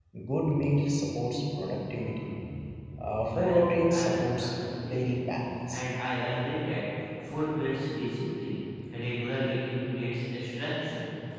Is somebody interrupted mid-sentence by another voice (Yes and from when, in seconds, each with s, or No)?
Yes, from 3.2 s